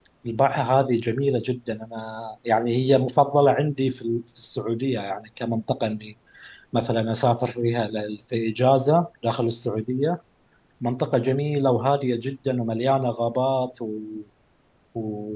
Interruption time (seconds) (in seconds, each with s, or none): none